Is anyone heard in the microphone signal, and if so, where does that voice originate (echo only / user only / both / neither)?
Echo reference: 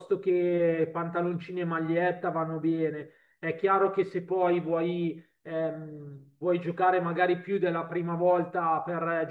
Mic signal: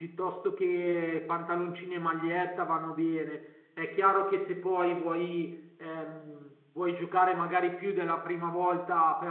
echo only